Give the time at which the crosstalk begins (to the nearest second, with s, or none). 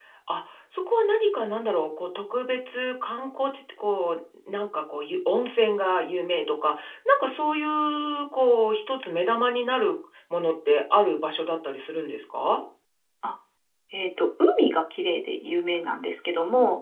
none